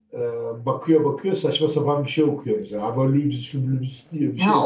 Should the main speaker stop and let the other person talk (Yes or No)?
Yes